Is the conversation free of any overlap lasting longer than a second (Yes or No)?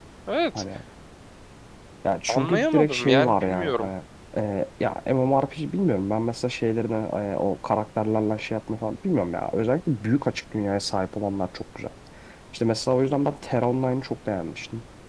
No